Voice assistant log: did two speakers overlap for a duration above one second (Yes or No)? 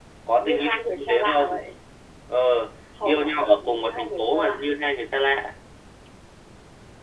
Yes